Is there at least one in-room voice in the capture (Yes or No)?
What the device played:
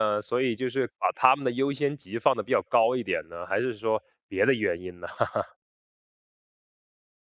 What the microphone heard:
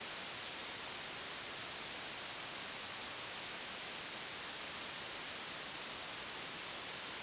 No